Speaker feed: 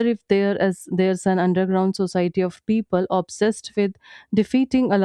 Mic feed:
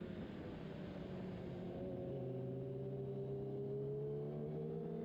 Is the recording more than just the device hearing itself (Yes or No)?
No